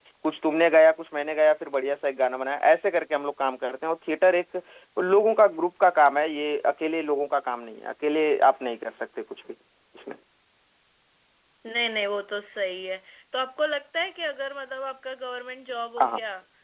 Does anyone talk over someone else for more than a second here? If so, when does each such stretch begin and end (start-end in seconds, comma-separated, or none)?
none